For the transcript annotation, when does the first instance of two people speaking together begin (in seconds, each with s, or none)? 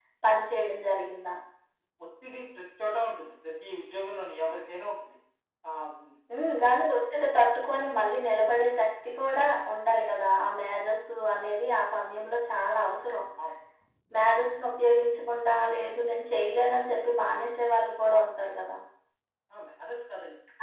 none